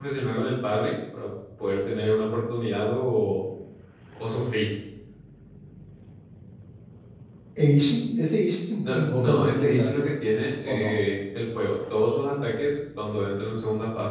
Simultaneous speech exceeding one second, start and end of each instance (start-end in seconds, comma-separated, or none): 8.8-10.1